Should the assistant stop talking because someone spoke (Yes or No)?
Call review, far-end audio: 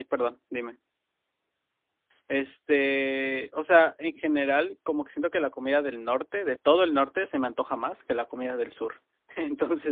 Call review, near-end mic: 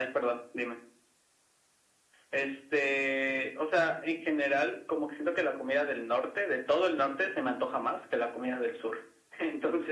No